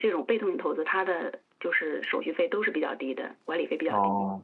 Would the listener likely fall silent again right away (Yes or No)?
No